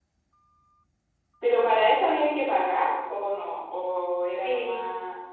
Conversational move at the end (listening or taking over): taking over